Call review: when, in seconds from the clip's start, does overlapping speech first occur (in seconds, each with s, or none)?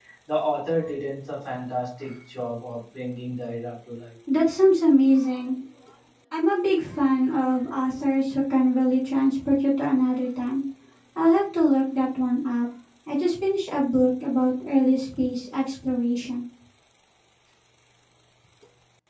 none